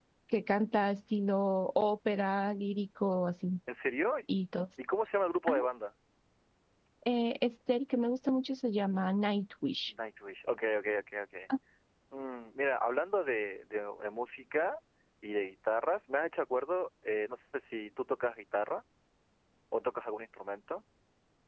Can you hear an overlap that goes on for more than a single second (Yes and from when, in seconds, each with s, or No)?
No